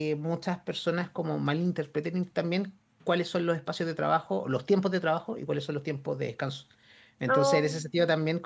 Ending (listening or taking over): listening